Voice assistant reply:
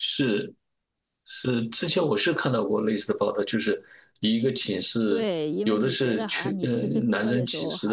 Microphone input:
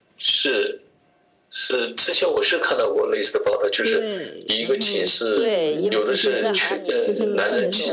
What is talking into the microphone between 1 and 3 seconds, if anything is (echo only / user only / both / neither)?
echo only